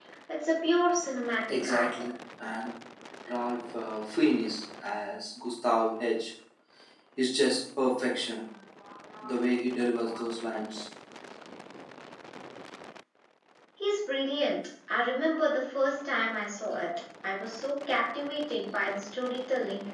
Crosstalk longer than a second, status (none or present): none